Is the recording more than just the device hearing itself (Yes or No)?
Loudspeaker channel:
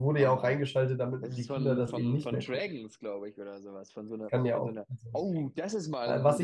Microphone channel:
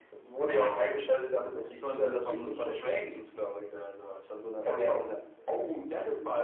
No